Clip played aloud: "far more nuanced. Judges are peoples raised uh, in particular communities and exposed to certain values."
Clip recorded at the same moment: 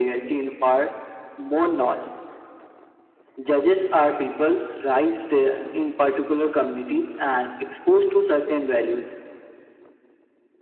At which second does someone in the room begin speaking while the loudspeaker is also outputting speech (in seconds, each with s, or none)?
none